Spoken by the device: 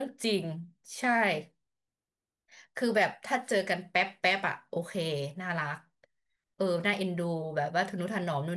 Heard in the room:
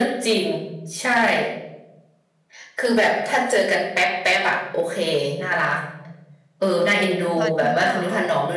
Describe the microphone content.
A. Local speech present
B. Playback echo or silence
A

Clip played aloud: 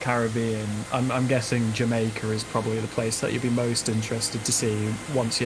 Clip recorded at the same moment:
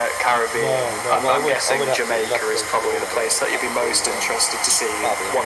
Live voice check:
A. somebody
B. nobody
A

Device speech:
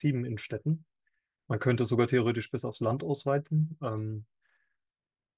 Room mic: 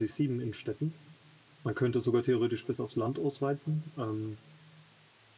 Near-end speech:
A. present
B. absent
B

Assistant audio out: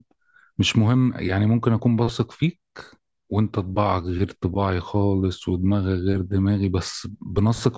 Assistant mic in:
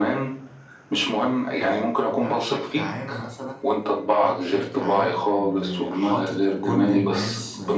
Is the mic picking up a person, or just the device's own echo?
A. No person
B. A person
B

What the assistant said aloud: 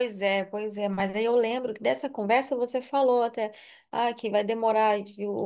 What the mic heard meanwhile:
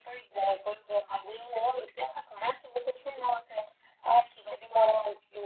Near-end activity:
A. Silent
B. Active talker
A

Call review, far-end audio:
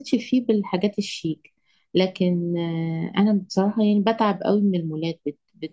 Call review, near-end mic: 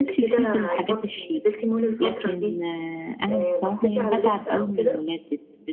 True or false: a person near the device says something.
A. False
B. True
B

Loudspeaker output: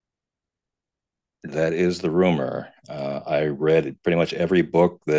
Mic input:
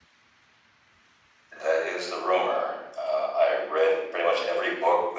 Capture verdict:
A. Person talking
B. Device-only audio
B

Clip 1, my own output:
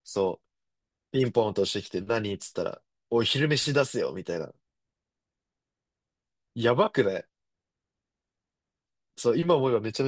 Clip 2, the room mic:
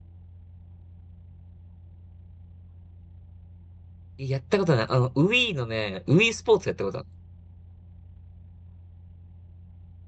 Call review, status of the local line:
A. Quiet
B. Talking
B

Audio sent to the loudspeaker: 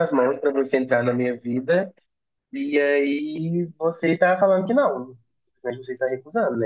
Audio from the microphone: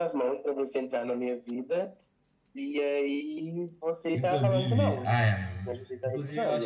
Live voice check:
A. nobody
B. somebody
B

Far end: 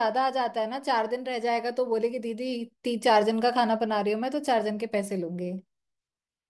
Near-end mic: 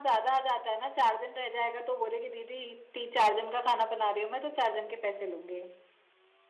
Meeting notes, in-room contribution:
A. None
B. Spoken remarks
A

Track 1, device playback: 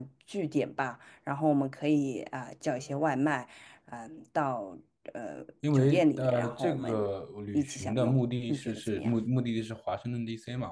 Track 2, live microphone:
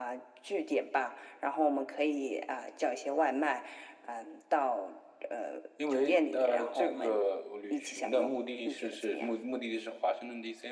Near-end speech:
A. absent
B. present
A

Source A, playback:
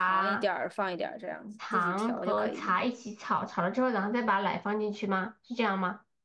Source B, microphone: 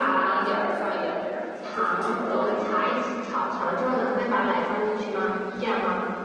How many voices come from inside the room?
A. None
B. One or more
A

